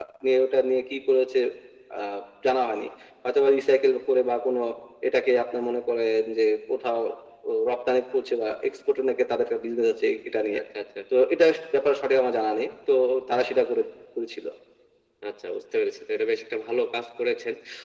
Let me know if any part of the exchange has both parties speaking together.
No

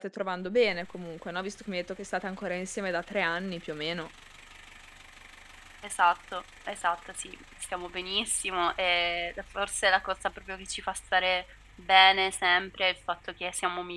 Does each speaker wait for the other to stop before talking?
Yes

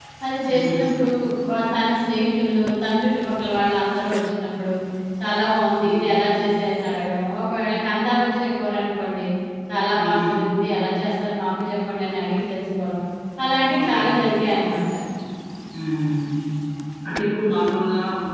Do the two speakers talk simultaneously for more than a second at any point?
No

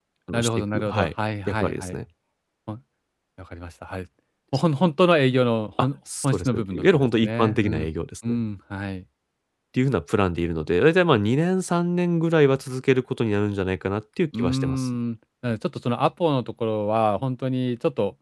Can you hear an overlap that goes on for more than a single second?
Yes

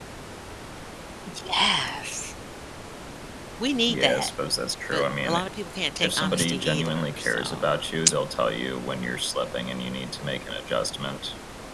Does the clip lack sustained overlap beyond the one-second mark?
No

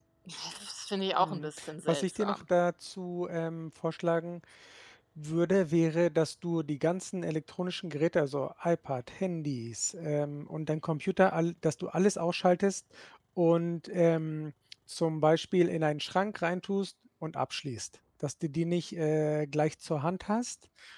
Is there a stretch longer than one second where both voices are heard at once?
Yes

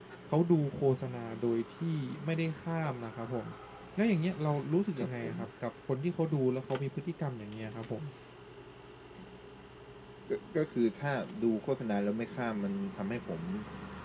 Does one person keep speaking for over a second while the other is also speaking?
No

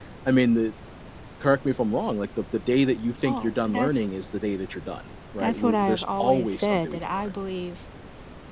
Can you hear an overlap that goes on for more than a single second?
Yes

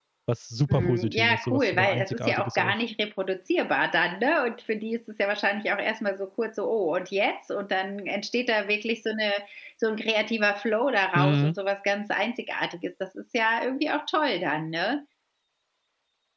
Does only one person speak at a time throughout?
No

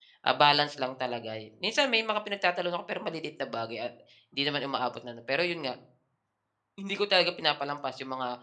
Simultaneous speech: No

